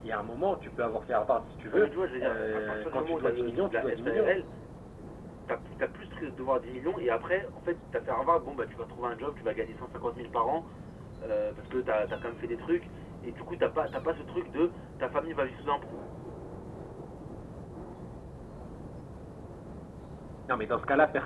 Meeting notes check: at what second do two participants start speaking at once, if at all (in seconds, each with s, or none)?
1.7 s